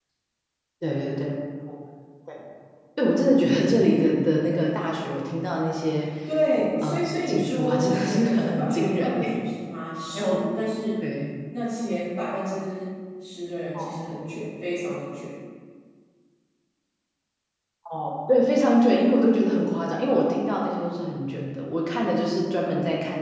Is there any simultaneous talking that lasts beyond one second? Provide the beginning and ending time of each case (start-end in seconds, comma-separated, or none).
6.8-9.2